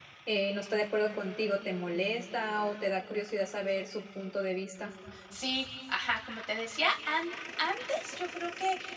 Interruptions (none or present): none